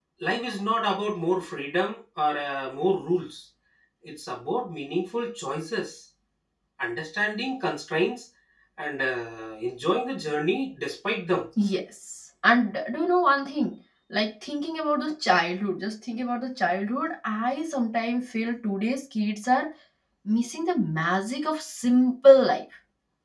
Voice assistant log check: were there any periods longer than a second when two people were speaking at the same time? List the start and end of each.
none

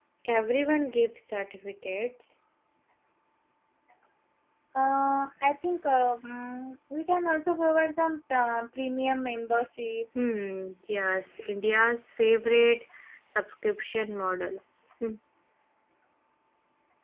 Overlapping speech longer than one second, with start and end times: none

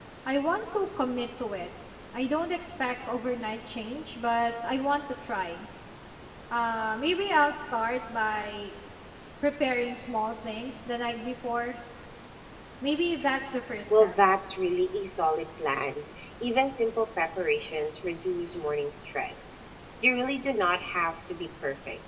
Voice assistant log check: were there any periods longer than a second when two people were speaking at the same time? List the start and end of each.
none

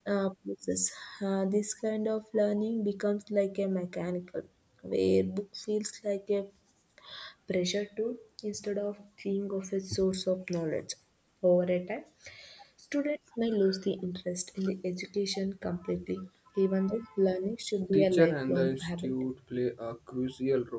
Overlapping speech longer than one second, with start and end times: 17.9-19.1

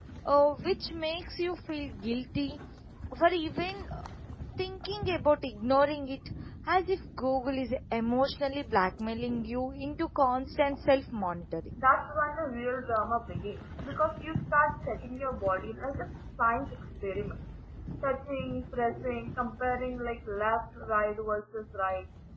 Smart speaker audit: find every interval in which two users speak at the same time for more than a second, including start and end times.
none

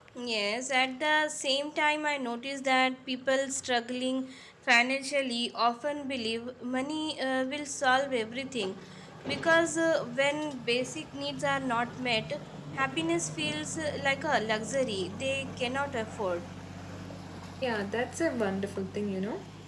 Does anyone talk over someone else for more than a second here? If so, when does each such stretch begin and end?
none

